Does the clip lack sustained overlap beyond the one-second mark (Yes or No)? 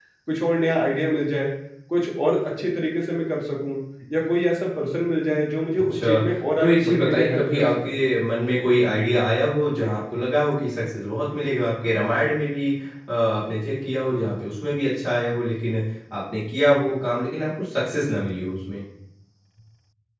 No